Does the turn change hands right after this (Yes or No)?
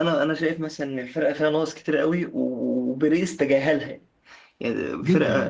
No